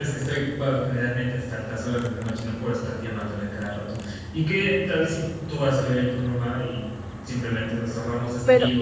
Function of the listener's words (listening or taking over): taking over